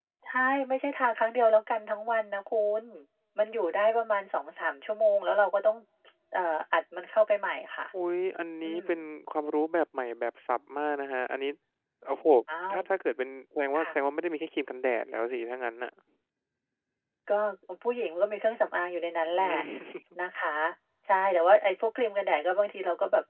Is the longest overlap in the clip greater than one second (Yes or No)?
No